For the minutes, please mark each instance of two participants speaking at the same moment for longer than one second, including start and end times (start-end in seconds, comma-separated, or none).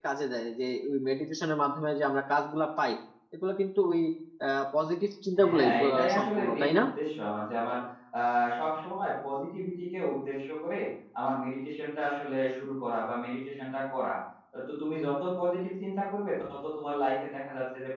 5.5-6.8